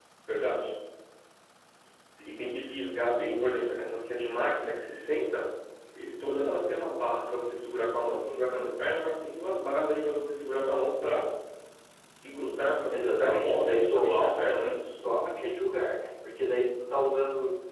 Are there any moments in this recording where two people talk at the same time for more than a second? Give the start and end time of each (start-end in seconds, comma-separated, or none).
12.9-14.8